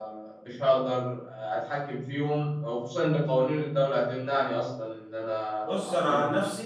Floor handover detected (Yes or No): Yes